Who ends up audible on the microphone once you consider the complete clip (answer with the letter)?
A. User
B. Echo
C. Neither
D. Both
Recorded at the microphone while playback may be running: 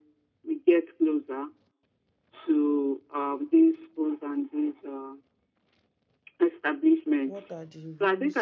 D